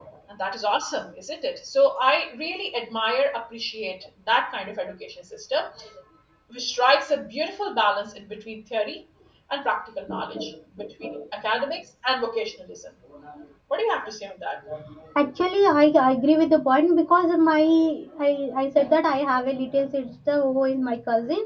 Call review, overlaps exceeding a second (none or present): none